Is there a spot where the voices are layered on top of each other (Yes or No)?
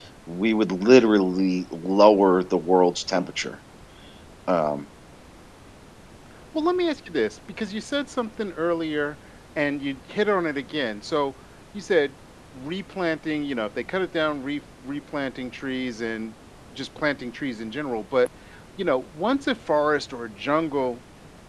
No